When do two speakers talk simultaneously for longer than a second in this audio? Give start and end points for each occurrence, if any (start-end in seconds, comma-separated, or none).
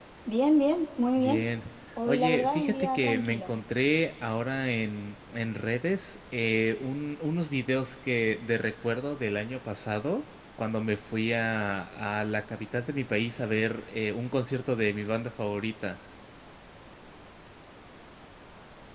2.1-3.5